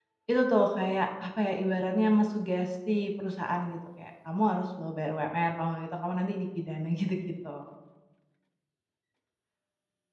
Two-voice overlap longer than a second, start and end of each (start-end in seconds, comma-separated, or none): none